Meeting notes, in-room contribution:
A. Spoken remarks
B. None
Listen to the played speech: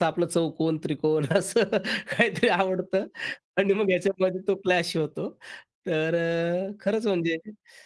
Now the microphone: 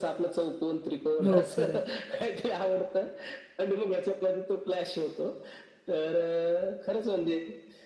A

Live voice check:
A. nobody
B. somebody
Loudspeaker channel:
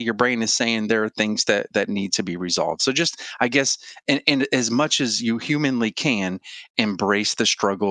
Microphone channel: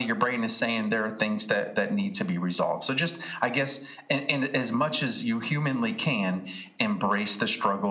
A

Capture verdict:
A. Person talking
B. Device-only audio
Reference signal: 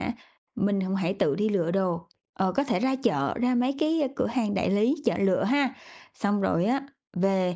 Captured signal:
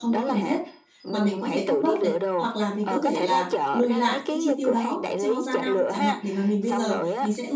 A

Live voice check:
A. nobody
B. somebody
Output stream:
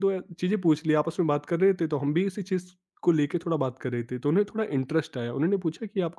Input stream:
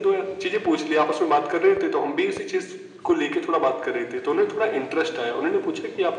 A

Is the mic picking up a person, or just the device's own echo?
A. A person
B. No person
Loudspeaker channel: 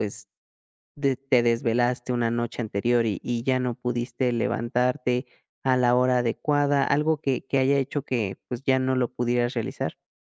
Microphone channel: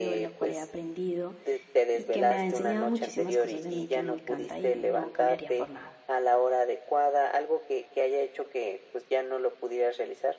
A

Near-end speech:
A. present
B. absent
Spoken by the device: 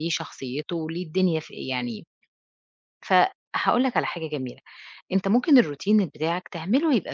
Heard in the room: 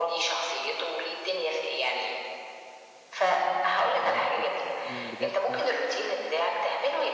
A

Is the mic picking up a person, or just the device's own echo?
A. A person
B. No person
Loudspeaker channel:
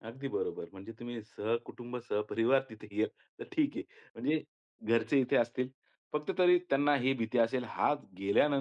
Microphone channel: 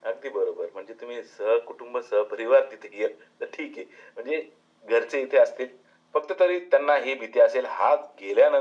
B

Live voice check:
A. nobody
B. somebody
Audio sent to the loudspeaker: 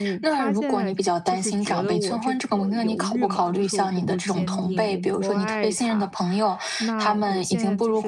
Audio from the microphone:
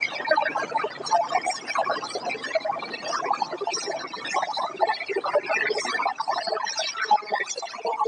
A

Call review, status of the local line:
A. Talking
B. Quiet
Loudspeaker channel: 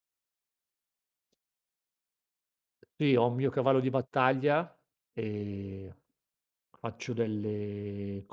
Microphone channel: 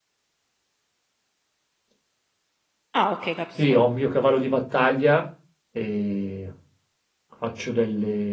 A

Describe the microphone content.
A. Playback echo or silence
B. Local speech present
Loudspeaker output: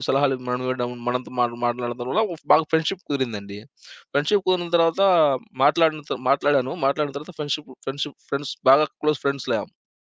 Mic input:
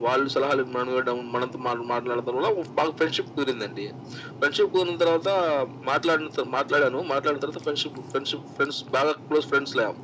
A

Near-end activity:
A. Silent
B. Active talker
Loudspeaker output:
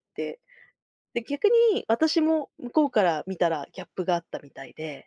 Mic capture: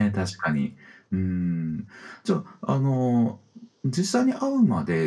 B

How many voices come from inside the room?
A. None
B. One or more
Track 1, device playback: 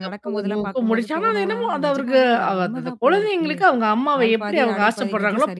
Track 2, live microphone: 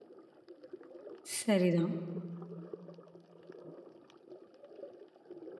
B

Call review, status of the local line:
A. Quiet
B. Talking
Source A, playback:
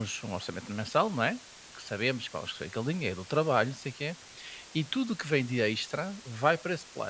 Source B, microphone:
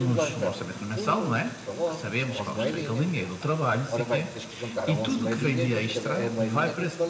B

